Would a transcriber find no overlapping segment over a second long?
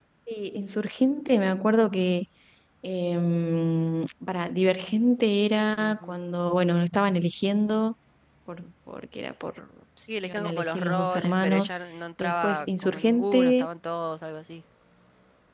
No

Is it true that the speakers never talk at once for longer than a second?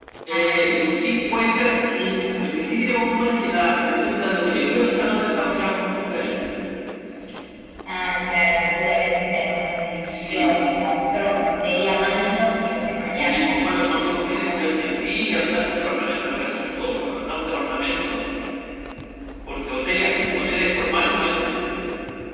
Yes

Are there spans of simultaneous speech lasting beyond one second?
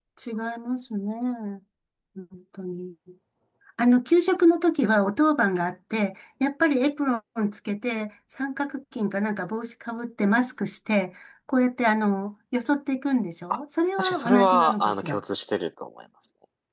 Yes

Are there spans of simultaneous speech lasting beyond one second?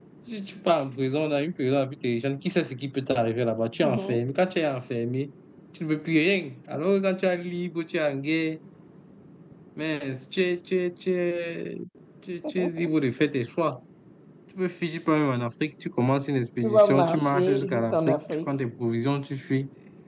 Yes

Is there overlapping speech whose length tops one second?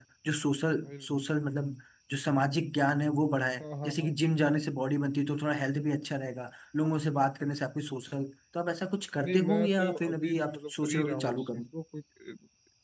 Yes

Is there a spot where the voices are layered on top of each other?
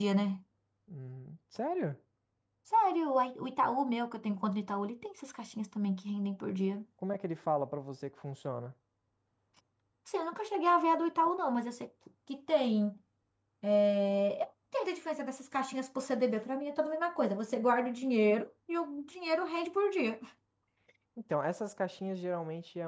No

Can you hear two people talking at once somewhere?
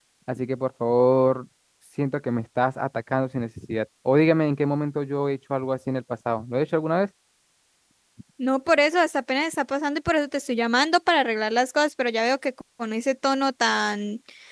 No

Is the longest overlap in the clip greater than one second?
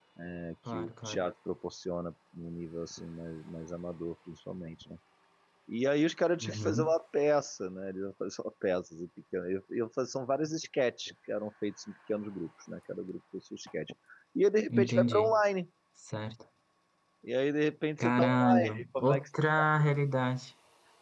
Yes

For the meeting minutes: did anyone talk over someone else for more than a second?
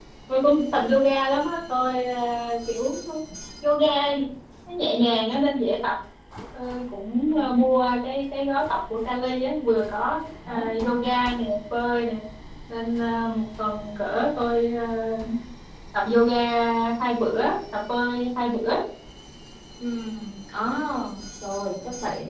No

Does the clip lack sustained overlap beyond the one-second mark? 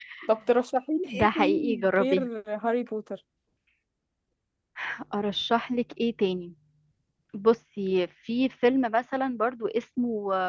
No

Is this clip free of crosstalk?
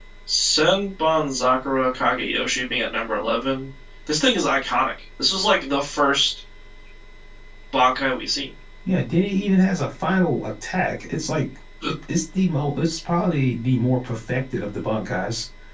Yes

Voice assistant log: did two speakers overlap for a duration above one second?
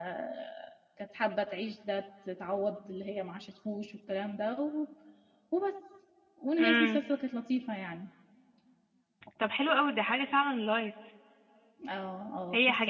No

